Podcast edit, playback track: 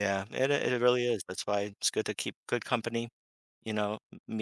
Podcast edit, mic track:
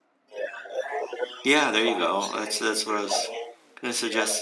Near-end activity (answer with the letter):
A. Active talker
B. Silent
A